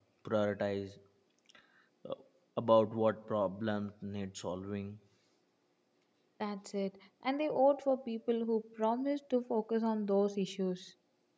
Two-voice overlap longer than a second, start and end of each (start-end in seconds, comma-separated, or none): none